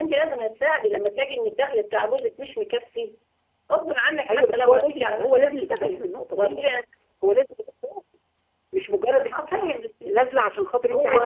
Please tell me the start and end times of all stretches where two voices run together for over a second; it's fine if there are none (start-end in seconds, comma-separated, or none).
4.3-6.7